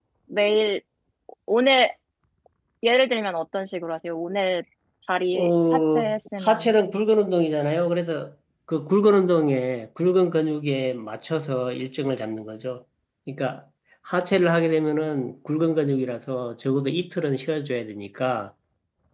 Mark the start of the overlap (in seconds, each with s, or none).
5.3 s